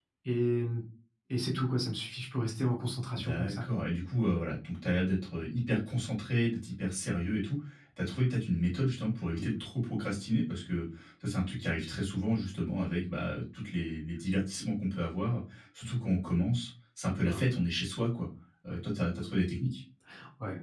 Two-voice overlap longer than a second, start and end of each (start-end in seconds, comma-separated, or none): none